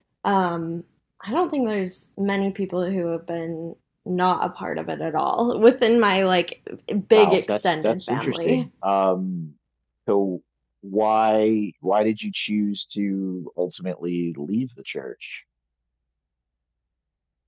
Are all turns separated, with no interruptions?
No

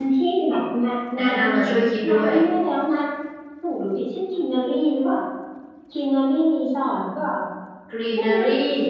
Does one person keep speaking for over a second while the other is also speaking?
No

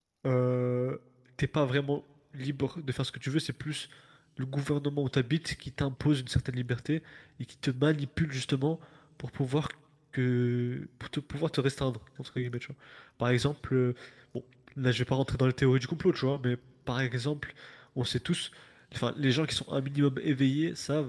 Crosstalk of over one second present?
No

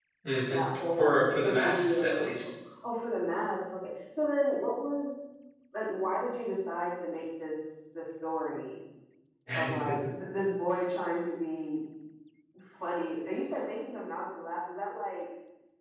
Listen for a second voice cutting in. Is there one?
Yes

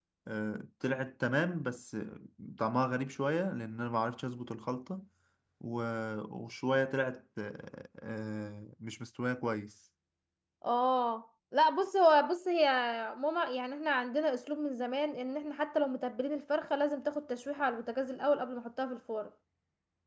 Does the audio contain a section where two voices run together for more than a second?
No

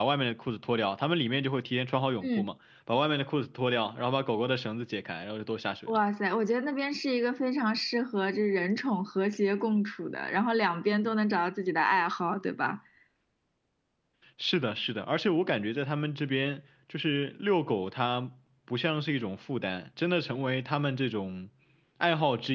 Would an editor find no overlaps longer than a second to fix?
Yes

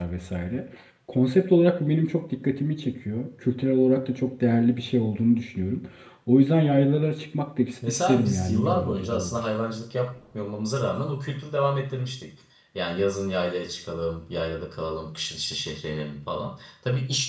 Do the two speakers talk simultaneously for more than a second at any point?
Yes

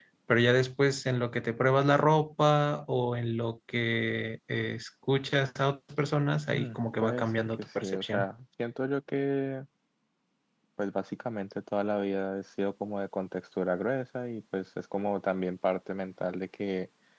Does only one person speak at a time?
No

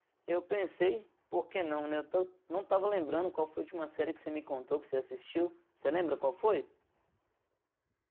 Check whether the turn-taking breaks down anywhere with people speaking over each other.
No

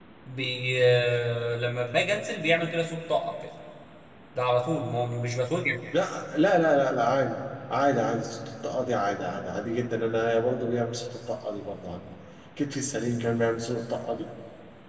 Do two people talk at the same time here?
No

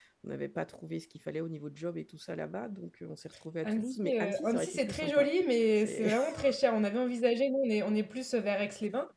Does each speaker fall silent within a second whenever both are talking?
No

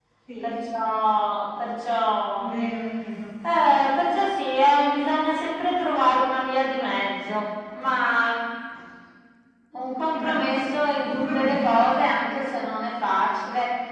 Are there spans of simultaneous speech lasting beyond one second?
Yes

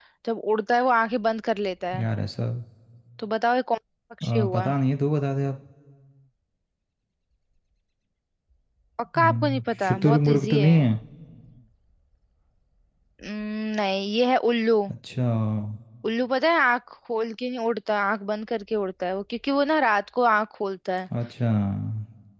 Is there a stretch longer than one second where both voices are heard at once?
Yes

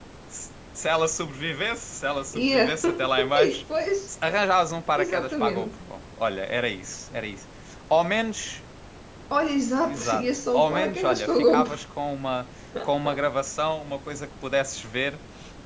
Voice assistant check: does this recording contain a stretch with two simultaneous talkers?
Yes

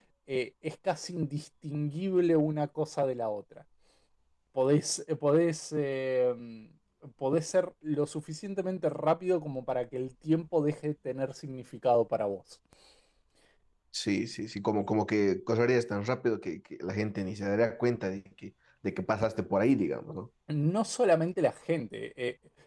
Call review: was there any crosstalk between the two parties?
No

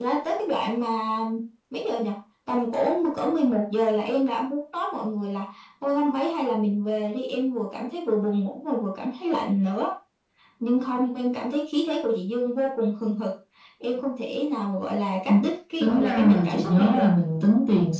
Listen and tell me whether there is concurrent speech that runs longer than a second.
Yes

